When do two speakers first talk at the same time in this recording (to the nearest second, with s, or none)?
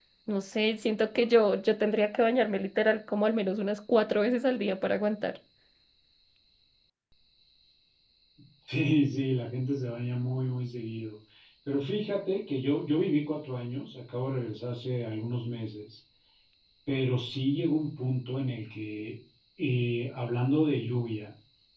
none